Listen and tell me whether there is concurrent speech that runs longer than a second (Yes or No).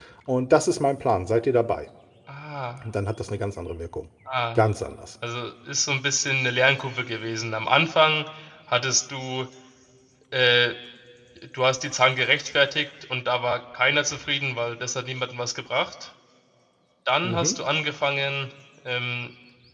No